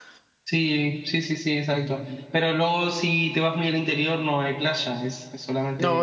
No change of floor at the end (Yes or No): No